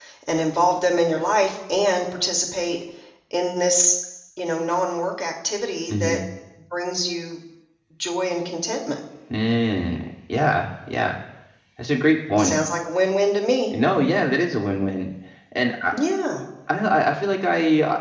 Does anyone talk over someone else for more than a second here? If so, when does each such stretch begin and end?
none

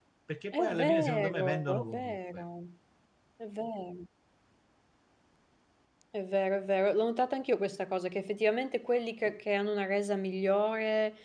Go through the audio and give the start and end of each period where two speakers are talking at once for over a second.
0.5-2.4

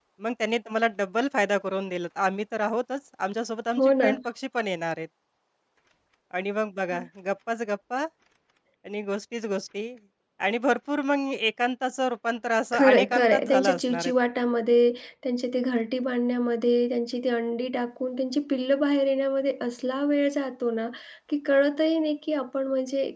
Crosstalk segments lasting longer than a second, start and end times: 12.7-14.1

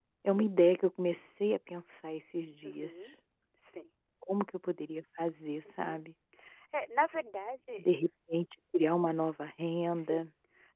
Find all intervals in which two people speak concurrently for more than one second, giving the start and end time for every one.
none

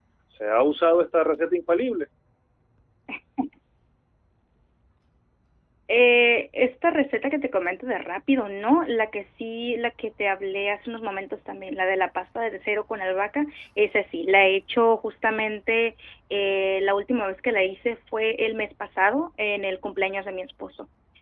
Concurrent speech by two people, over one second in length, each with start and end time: none

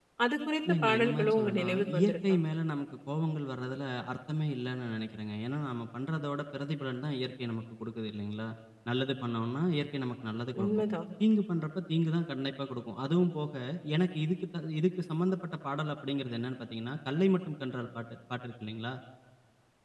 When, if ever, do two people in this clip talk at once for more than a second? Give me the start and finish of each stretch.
0.8-2.4

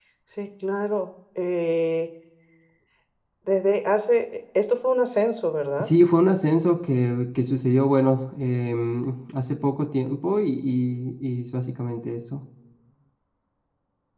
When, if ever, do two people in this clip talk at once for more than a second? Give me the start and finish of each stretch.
none

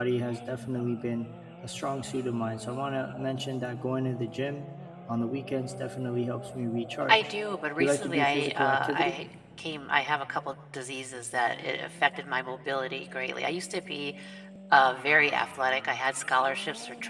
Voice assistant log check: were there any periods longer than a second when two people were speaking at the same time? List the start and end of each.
7.8-9.2

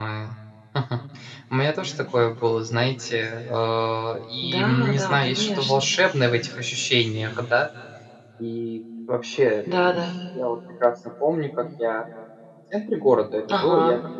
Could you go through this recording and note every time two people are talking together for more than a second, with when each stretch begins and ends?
4.5-5.9

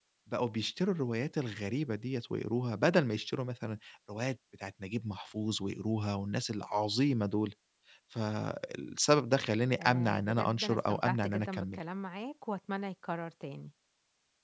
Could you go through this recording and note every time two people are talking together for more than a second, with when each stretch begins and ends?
9.8-11.8

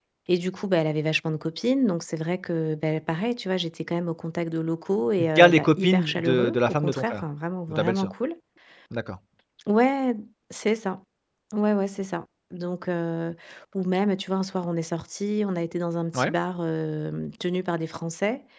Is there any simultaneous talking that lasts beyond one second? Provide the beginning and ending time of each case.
5.2-7.2

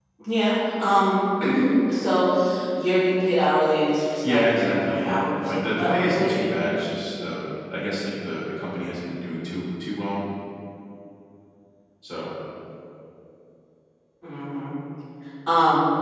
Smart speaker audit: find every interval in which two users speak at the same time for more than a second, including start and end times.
4.2-6.5

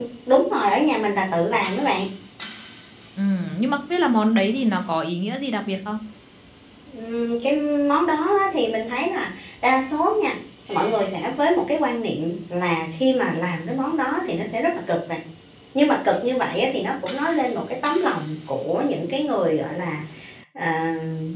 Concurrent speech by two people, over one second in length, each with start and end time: none

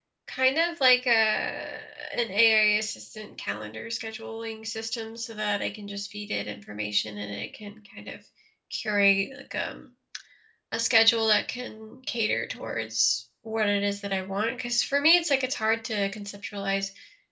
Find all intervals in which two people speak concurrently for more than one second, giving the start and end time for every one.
none

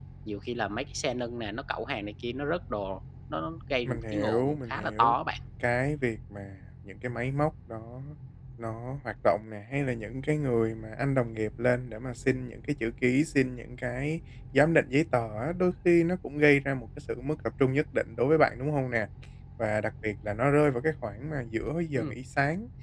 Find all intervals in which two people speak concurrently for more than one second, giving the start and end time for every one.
3.8-5.1

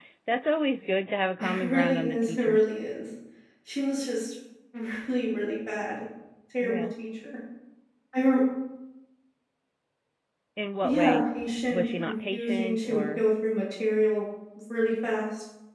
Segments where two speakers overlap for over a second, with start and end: 1.4-2.6, 11.7-13.3

